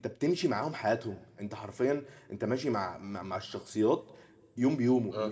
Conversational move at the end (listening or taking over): listening